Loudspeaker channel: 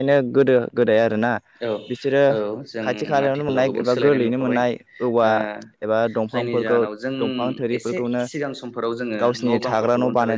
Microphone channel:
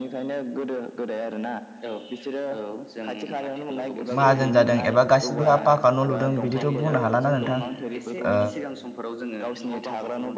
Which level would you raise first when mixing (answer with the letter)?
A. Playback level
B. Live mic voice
A